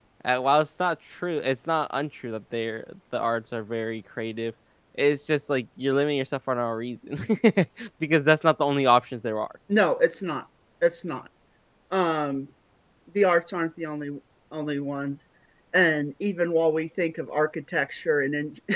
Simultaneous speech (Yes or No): No